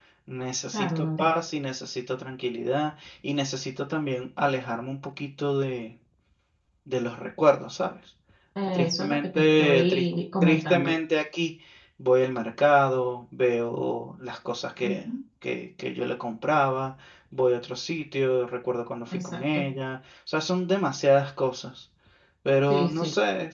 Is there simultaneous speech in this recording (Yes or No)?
Yes